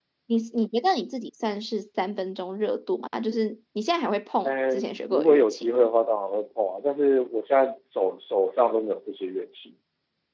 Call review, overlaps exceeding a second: present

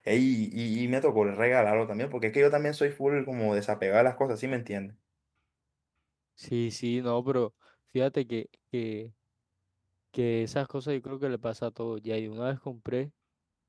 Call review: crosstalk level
none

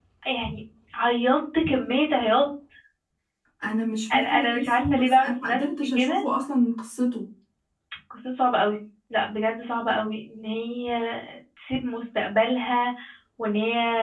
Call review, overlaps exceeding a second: present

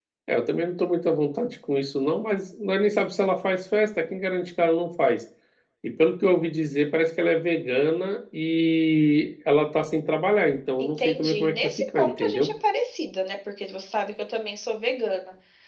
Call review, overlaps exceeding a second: present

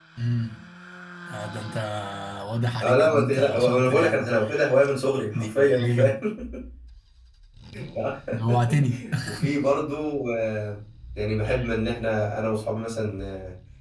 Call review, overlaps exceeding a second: present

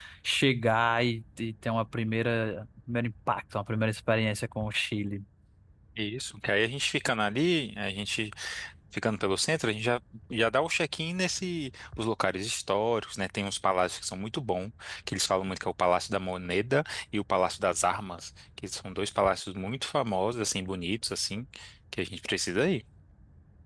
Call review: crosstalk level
none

